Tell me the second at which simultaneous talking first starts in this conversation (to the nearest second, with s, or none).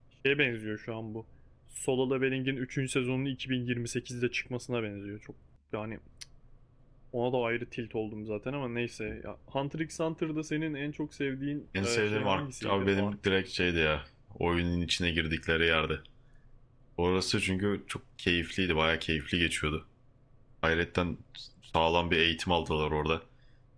12 s